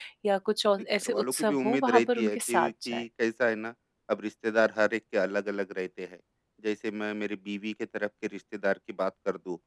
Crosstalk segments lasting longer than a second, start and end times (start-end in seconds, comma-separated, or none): 1.0-3.0